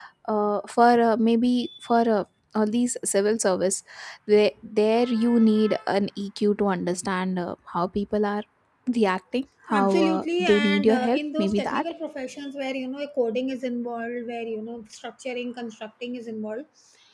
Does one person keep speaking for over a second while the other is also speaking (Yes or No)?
Yes